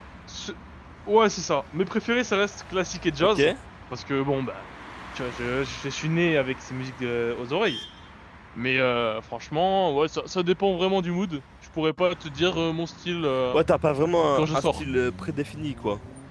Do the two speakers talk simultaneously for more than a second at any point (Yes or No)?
No